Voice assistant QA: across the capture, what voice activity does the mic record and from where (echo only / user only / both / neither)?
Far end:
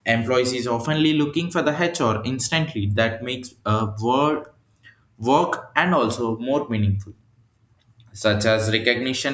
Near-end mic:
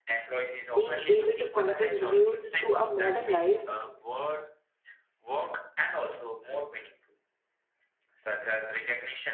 both